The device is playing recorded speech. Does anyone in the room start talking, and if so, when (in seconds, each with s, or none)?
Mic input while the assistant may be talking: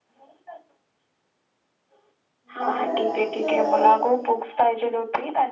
2.6 s